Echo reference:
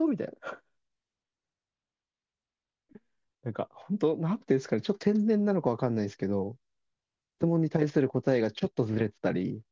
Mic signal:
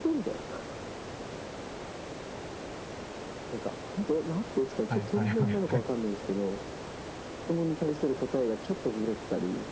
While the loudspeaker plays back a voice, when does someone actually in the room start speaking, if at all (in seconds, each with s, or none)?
4.9 s